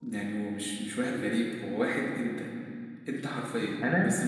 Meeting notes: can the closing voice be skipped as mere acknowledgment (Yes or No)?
Yes